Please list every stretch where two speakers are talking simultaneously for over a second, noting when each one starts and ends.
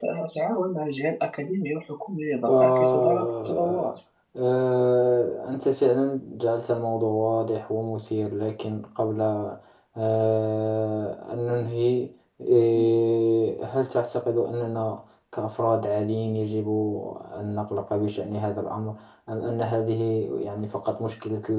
2.5-3.9

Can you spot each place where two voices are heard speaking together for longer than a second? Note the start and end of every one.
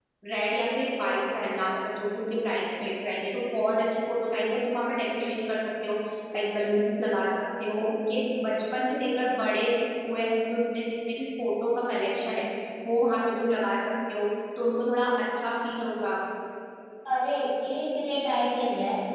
none

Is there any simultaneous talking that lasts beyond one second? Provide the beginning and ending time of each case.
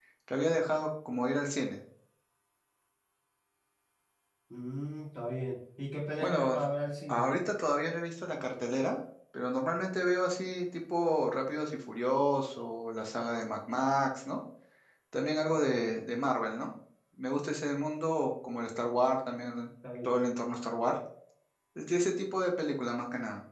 none

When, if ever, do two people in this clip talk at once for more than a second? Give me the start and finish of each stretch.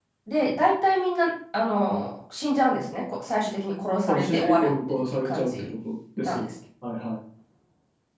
4.1-5.5

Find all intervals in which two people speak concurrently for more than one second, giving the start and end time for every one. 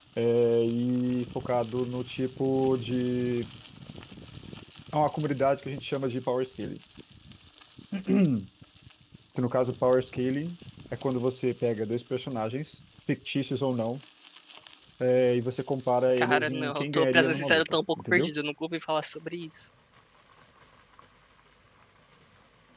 16.2-18.3

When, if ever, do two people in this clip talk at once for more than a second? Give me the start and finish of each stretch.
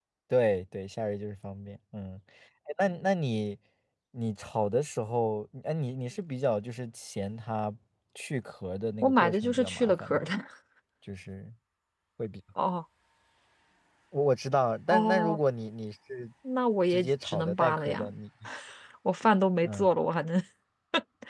9.0-10.3, 16.9-18.1

